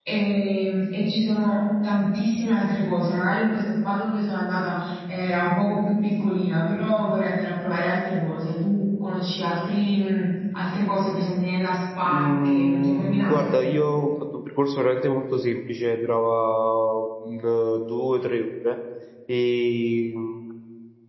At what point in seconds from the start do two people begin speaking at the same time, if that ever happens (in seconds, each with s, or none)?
12.0 s